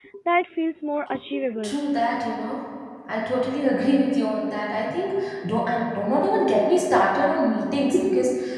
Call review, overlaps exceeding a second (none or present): none